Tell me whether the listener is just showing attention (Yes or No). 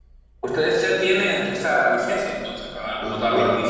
No